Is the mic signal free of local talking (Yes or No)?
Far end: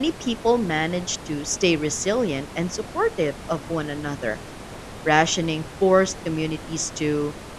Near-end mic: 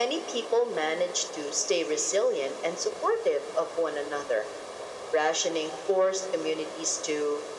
Yes